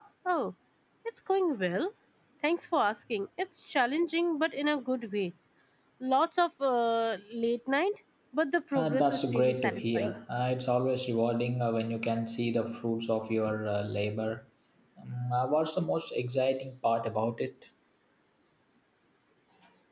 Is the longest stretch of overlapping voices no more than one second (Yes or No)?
No